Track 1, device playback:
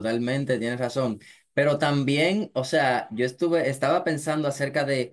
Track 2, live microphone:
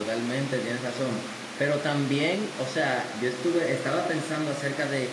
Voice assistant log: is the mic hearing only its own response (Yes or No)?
Yes